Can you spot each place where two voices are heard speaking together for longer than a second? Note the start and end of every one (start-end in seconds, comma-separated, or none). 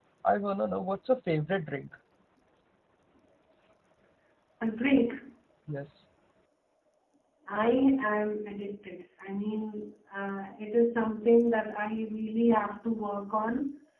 none